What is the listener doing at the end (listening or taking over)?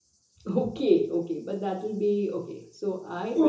taking over